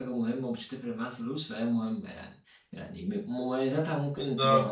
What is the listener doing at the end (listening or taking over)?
listening